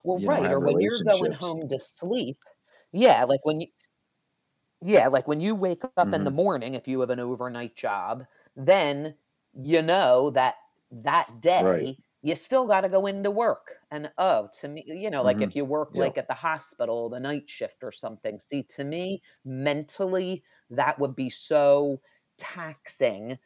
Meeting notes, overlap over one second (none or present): present